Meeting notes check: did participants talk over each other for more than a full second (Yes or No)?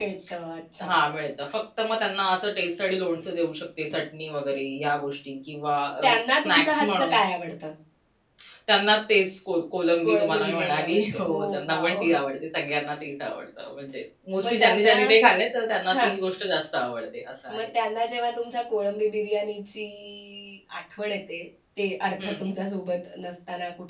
Yes